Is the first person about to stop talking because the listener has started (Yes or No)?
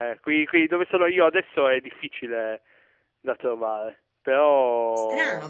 Yes